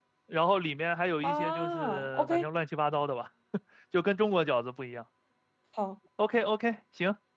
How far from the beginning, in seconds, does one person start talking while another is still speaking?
1.2 s

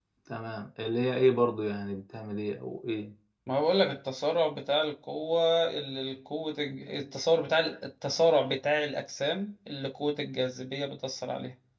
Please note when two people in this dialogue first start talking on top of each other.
none

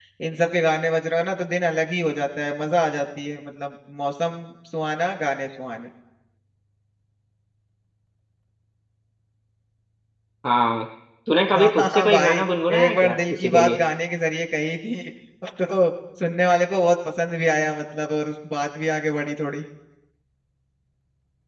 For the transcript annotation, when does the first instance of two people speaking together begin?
11.5 s

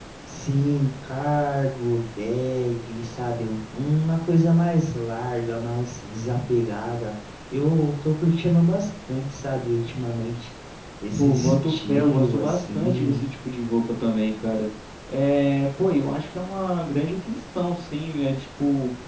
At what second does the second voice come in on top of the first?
11.2 s

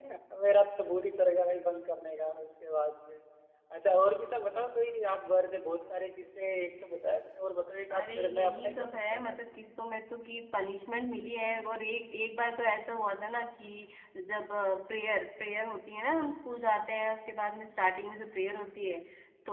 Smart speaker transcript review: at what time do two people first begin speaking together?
7.9 s

